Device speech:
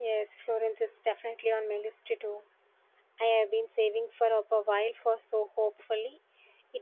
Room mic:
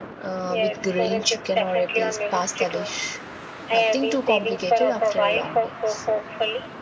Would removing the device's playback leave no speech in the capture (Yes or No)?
No